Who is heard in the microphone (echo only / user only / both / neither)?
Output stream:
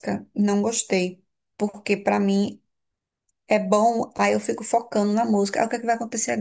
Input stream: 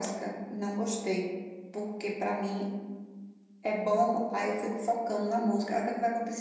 echo only